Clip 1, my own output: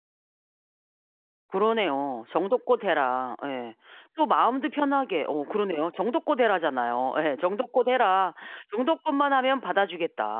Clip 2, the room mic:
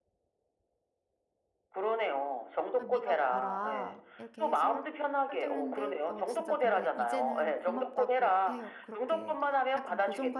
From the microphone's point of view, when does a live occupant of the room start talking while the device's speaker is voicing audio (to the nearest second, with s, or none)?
3 s